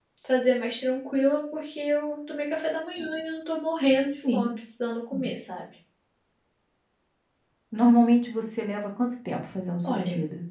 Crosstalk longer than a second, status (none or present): none